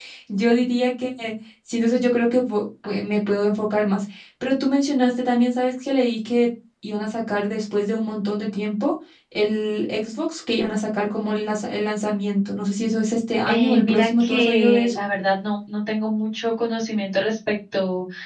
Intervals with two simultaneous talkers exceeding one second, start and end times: 13.5-15.0

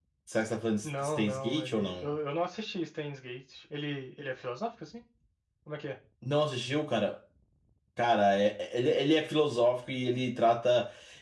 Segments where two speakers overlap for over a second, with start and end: 0.8-2.1

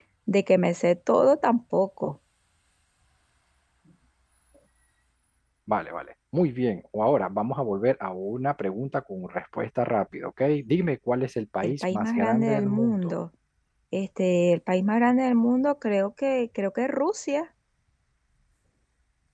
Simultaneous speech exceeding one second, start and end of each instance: 11.6-13.1

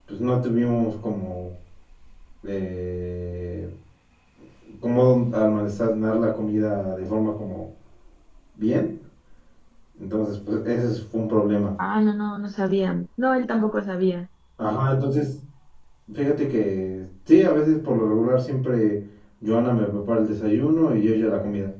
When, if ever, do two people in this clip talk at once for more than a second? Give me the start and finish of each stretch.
none

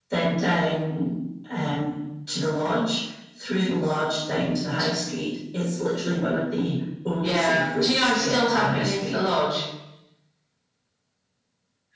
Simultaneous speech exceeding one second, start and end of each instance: 7.2-9.2

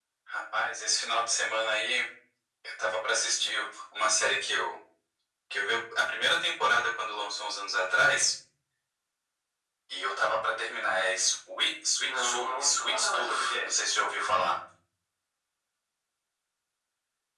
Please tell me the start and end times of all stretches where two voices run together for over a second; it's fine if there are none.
12.0-13.6

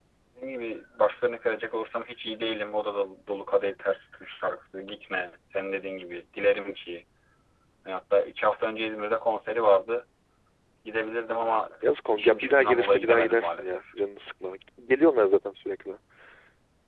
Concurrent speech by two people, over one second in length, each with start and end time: 12.1-13.8

